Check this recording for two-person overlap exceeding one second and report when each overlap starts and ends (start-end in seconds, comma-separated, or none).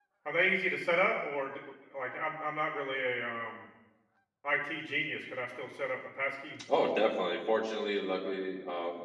none